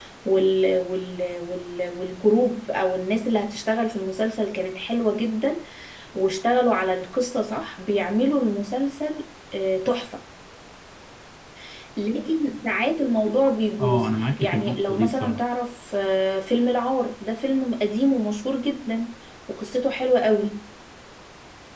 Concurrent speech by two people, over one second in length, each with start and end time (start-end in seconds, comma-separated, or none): 13.8-15.4